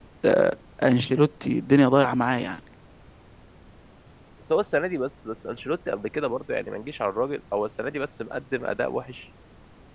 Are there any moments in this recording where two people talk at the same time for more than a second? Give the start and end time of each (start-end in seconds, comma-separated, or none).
none